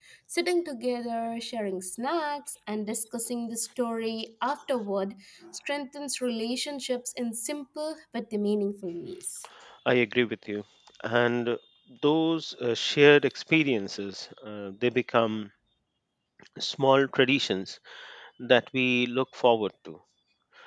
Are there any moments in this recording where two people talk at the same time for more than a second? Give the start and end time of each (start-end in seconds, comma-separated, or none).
none